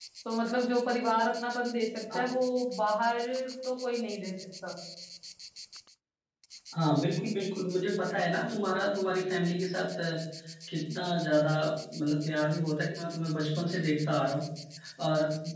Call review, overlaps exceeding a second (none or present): none